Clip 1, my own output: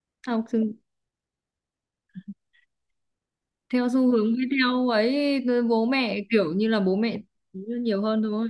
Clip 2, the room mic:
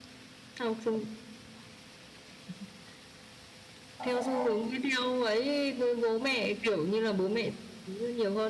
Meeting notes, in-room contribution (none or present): present